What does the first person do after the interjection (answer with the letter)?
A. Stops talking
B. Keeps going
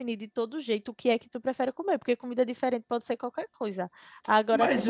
B